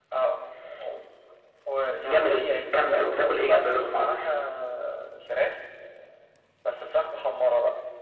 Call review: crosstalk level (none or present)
present